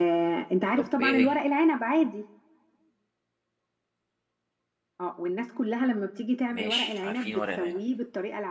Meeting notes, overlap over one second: present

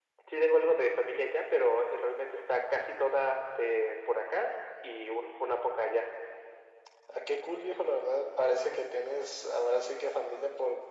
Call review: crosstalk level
none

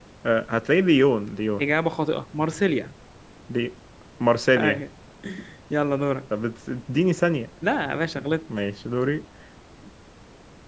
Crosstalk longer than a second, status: none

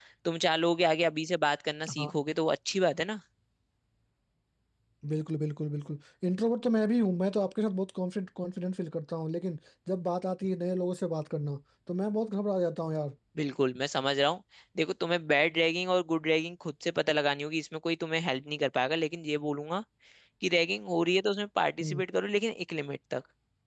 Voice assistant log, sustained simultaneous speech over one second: none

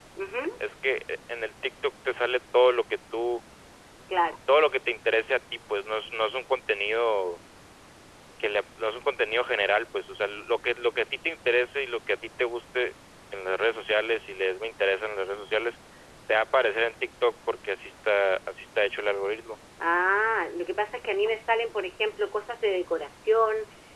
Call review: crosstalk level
none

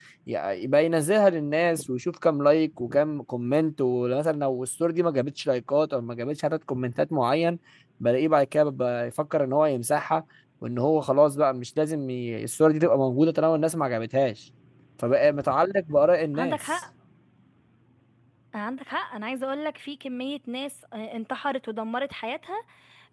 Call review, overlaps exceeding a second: none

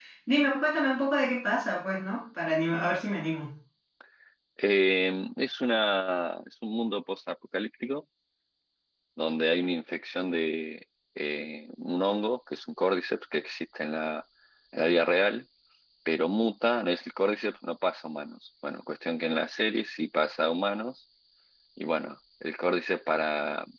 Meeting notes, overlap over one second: none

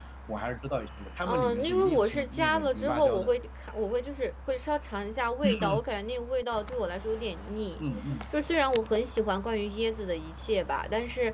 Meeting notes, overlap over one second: present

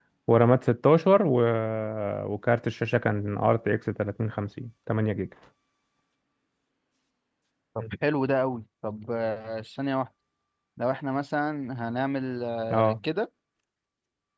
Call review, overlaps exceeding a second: none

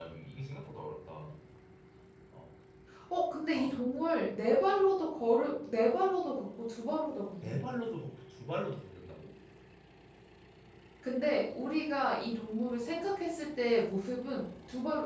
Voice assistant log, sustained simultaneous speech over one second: none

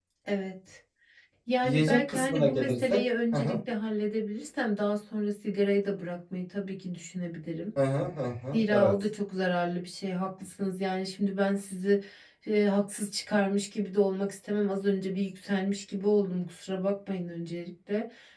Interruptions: present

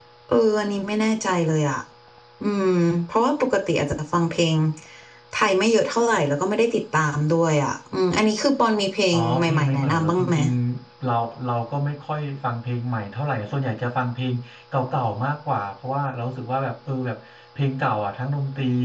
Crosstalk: present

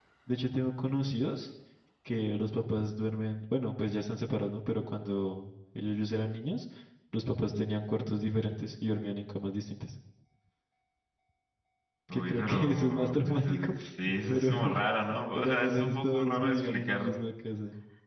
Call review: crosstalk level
present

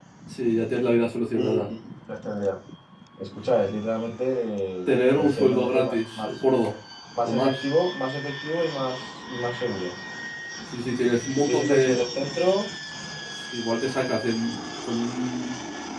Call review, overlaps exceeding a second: present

